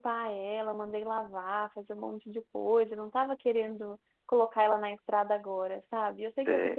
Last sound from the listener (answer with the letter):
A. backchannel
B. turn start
A